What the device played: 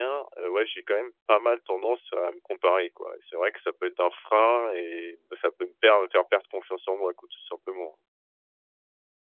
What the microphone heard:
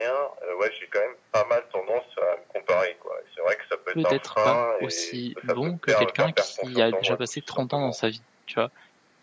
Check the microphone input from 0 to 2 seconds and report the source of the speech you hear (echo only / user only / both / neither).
echo only